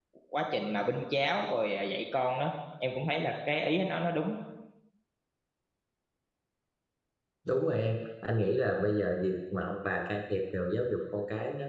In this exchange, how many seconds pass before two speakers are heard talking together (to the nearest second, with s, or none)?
none